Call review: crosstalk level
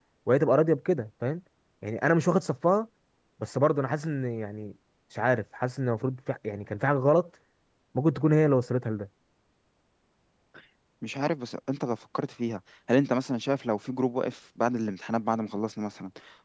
none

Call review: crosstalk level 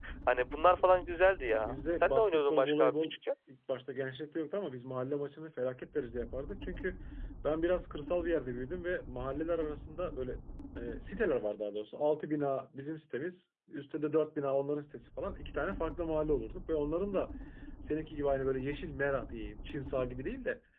present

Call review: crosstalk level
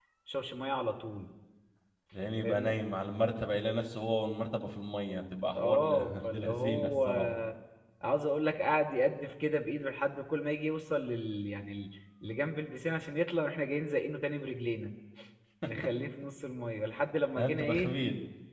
present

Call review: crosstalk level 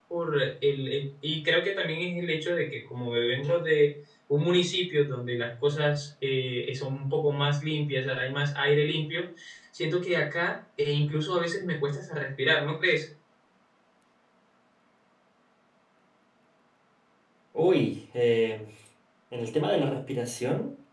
none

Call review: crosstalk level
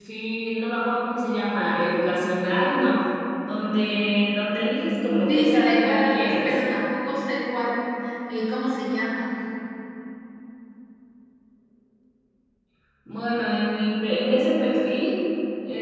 present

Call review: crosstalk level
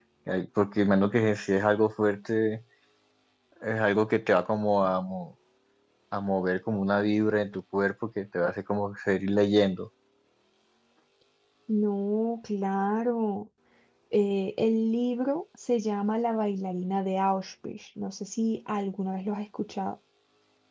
none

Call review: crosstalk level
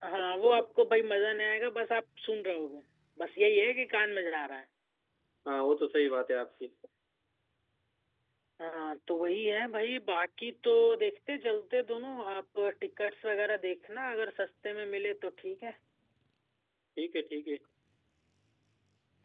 none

